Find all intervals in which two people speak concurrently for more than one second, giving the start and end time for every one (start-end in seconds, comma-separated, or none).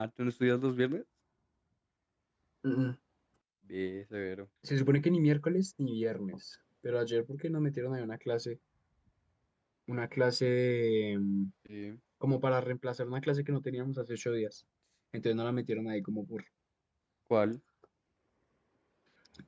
none